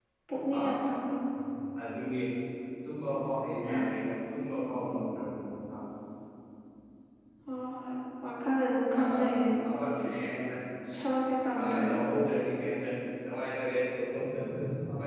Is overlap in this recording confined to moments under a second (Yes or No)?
Yes